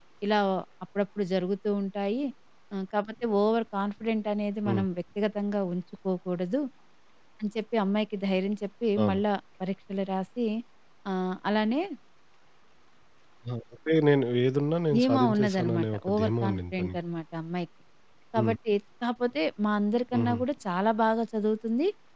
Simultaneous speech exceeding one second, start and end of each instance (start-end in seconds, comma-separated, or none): 14.9-17.0